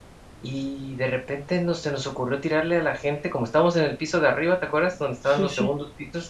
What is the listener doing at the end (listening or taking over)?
listening